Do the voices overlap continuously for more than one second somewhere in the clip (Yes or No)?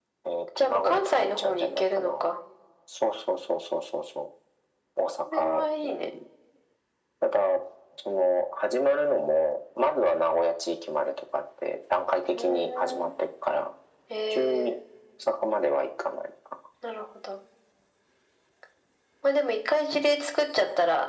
Yes